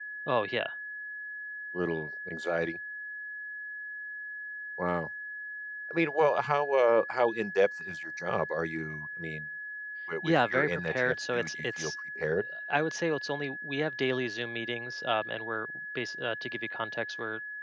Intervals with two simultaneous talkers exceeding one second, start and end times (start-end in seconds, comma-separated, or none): 10.2-11.9